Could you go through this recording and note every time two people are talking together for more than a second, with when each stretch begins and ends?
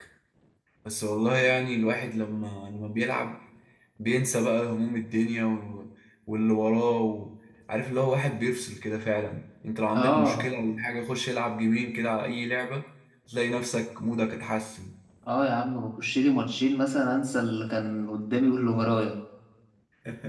none

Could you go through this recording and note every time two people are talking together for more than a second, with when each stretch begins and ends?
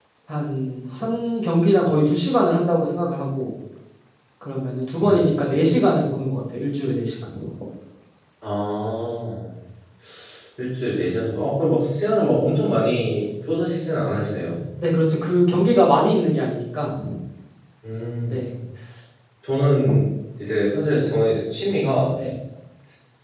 none

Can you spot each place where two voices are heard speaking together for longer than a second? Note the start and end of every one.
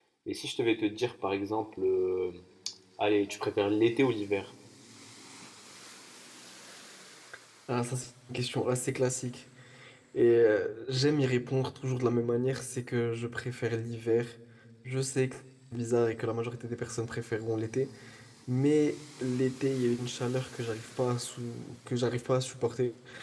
none

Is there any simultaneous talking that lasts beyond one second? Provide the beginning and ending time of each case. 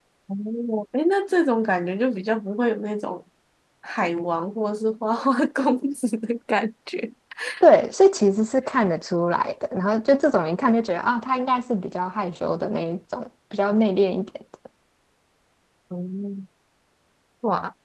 none

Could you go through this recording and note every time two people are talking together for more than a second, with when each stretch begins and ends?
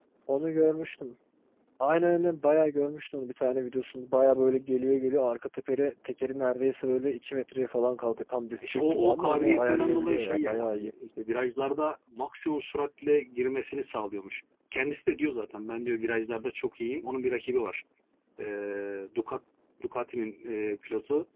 8.6-10.9

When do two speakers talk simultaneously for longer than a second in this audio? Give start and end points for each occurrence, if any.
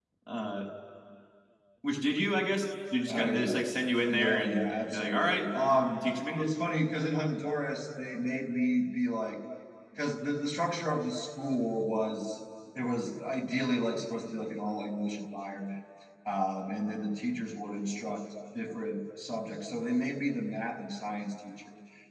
4.1-5.5

